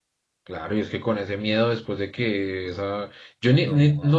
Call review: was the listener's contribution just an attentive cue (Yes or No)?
Yes